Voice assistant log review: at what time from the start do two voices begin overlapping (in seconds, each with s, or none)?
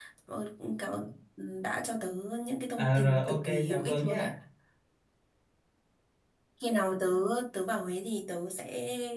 2.8 s